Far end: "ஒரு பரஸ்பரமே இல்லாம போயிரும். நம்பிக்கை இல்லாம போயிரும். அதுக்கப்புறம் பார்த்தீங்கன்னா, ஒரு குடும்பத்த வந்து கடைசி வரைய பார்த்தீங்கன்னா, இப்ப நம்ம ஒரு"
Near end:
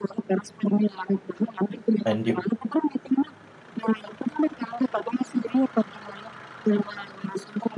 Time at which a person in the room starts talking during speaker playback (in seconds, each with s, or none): 2.1 s